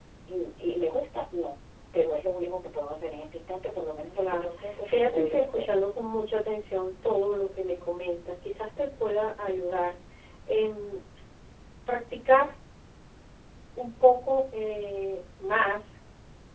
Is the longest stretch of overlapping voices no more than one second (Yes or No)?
No